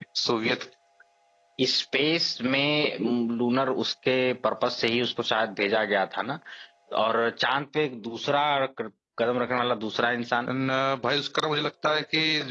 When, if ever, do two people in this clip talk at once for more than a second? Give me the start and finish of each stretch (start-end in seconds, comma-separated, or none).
none